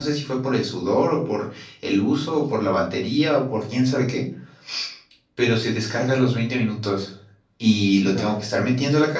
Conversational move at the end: listening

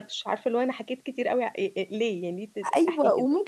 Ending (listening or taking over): taking over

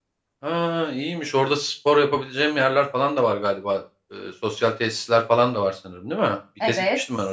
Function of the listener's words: taking over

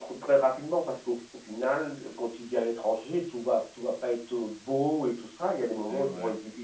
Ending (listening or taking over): listening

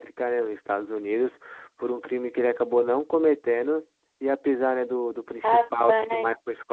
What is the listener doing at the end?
listening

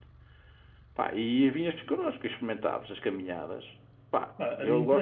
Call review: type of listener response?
taking over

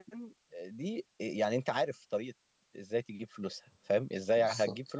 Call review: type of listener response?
listening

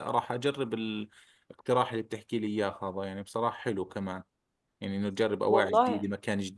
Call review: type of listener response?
listening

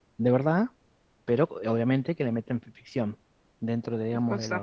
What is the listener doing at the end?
listening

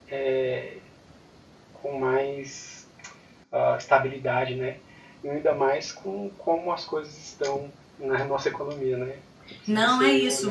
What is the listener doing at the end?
taking over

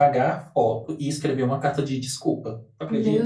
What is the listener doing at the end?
taking over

